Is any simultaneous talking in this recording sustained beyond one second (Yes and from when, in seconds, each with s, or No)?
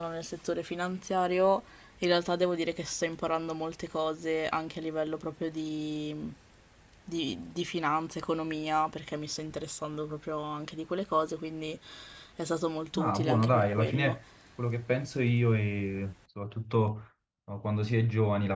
Yes, from 13.0 s